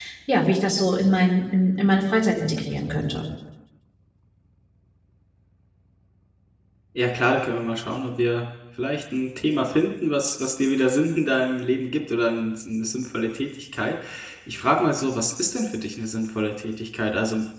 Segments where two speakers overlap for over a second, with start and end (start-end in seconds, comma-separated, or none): none